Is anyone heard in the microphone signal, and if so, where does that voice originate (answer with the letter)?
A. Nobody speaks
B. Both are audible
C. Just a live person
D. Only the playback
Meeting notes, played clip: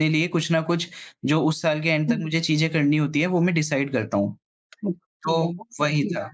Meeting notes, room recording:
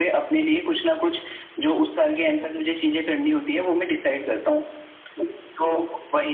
D